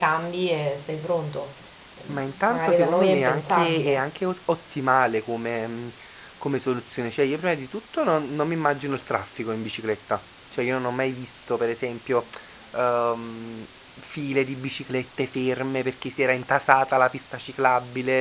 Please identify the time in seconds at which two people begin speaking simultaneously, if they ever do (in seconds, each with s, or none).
2.5 s